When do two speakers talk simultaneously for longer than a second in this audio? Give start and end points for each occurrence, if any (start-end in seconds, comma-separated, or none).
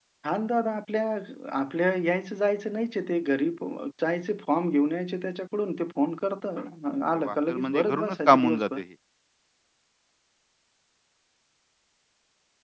7.1-8.8